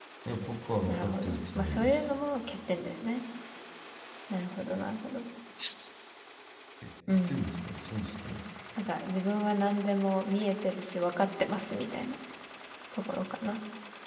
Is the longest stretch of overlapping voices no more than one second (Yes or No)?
No